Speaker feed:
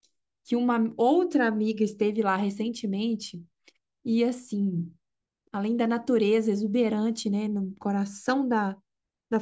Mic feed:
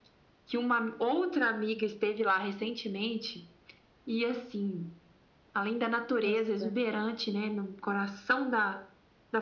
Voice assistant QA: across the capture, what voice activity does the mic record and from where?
both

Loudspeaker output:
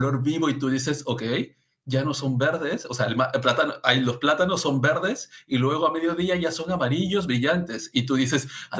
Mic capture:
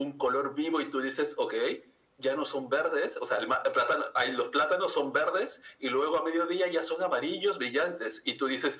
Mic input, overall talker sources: echo only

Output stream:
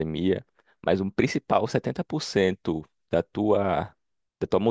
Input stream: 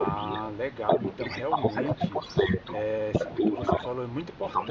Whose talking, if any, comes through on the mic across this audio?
both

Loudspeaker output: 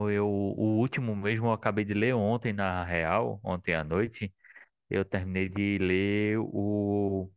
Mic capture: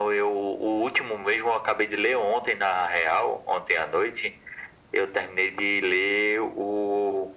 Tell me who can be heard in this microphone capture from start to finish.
echo only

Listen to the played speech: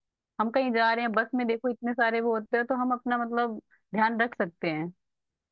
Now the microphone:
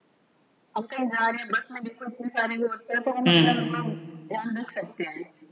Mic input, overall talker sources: both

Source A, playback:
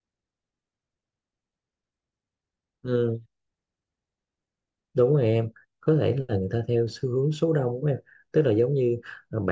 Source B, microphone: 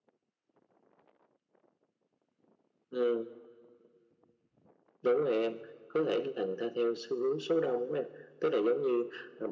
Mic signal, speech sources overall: echo only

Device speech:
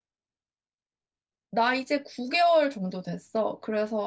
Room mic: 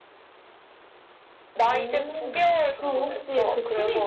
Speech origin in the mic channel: both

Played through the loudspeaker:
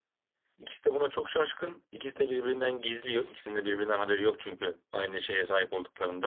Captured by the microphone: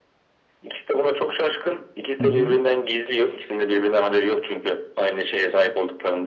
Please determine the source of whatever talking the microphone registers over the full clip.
both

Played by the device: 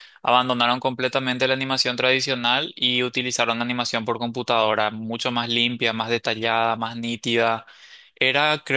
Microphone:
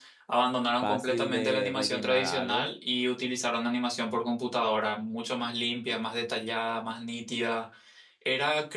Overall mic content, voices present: both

